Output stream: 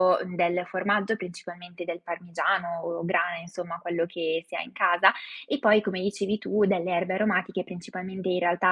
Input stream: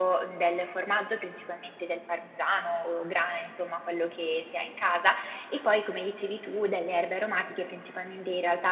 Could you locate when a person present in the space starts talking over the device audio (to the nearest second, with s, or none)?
none